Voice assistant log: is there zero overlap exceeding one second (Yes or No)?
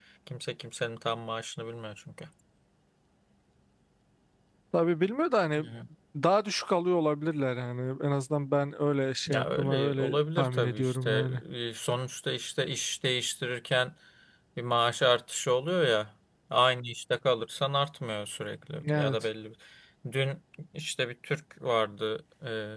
No